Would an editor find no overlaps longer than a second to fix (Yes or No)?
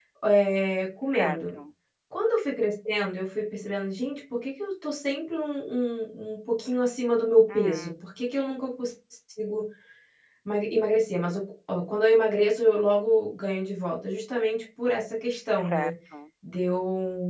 Yes